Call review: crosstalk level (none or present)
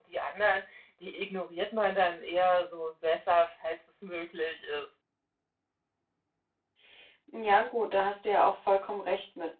none